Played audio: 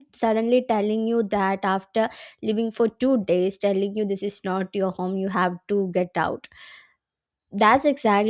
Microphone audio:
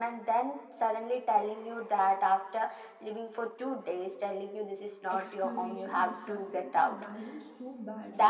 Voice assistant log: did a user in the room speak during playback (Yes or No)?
Yes